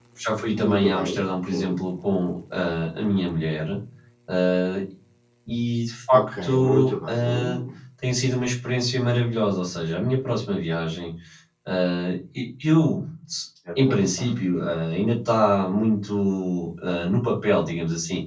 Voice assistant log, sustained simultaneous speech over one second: present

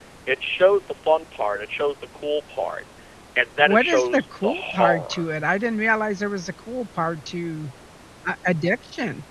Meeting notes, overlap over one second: present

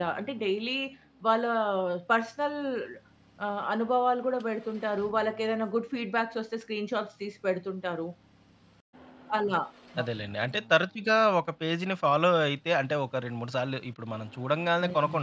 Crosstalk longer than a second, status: none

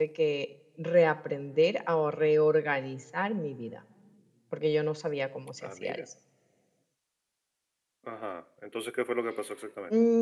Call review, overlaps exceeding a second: none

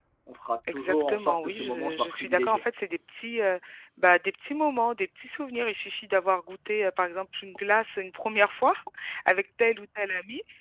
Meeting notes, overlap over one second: present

